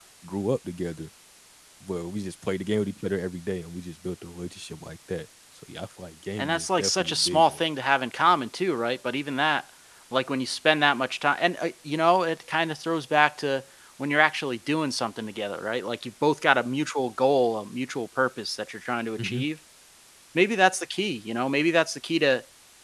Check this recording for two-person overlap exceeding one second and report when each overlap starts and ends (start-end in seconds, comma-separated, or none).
6.4-7.6